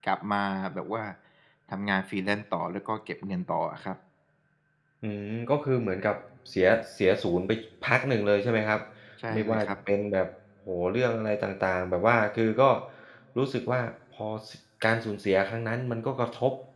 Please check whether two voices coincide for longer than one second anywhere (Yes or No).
No